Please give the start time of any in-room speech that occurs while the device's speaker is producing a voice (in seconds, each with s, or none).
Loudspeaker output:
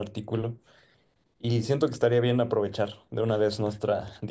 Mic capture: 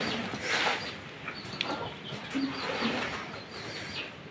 none